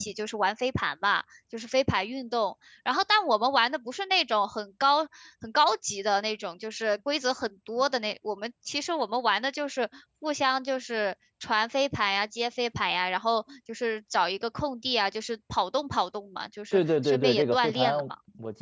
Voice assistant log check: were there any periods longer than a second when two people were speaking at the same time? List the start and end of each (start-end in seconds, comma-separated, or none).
16.7-18.0